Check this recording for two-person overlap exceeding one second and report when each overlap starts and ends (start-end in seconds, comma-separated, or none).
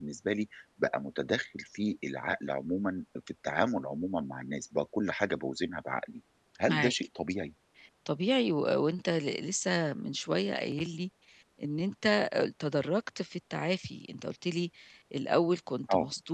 none